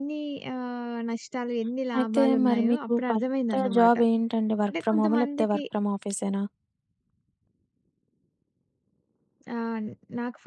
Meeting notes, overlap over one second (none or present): present